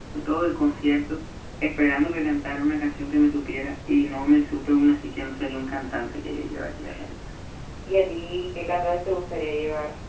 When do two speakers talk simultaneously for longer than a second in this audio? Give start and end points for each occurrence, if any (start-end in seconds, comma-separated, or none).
none